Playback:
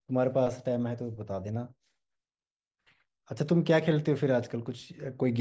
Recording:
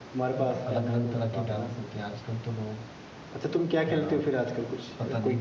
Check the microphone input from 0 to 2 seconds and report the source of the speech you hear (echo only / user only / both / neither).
both